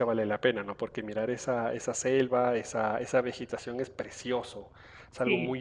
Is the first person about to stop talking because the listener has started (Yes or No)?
No